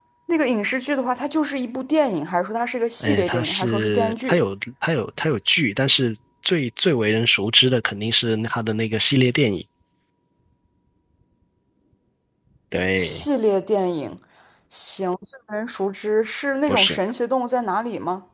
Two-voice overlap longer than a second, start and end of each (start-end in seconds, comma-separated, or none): 3.0-4.4